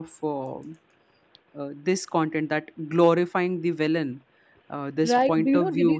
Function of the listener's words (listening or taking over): taking over